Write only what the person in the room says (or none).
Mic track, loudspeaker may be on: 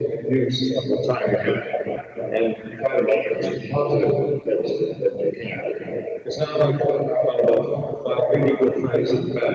none